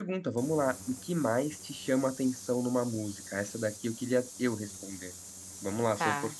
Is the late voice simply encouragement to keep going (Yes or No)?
Yes